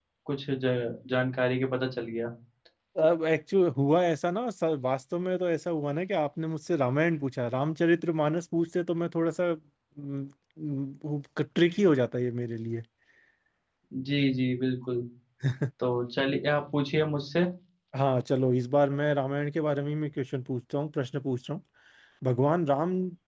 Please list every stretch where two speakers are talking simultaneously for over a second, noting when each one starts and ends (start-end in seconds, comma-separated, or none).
none